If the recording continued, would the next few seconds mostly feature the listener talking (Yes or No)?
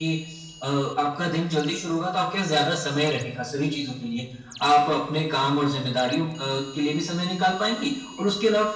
No